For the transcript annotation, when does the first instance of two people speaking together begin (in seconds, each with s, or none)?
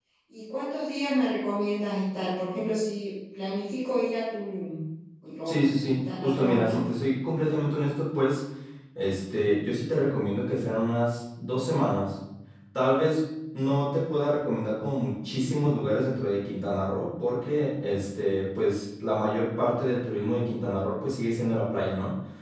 5.5 s